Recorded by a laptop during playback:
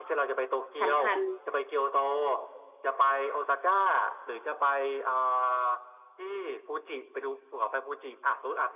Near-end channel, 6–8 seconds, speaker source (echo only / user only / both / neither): echo only